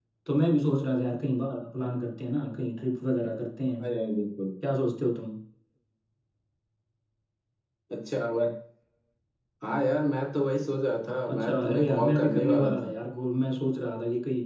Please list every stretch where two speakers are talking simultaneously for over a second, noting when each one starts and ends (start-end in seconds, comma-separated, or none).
11.3-12.9